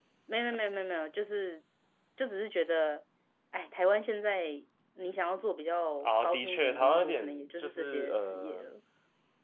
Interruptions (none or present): present